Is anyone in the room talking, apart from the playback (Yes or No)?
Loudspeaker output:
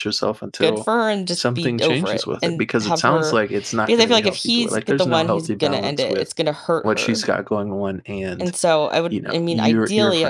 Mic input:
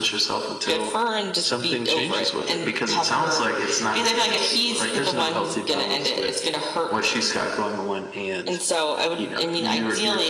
No